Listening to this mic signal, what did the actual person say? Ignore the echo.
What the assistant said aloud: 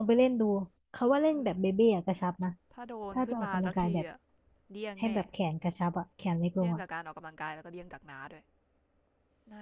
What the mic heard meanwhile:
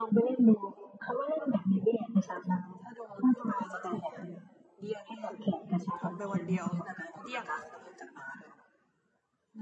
ทำไปวันเดียวเดี่ยง

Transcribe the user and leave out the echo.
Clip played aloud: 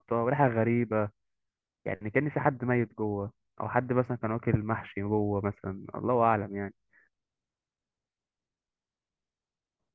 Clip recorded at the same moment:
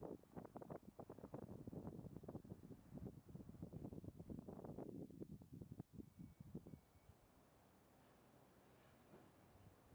none

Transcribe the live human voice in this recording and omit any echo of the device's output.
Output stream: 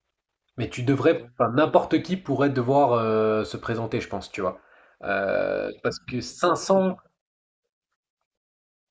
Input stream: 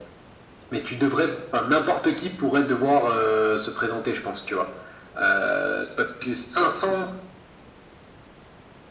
none

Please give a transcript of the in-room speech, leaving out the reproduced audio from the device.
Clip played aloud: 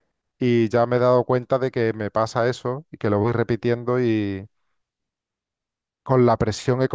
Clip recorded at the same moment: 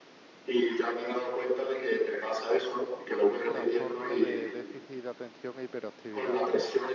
trastorno de déficit de atención e hiperactividad.

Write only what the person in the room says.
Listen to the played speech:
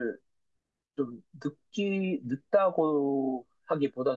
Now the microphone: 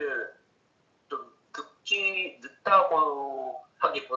none

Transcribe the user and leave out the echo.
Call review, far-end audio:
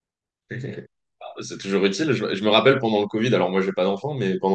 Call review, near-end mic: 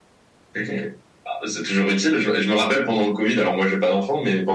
none

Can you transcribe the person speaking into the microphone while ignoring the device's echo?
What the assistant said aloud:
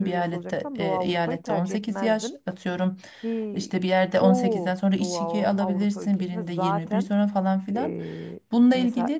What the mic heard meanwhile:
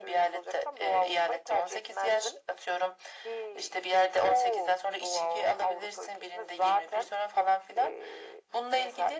none

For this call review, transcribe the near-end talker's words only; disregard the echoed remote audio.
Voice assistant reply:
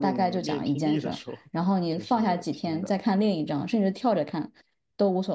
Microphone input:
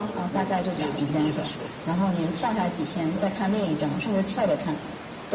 none

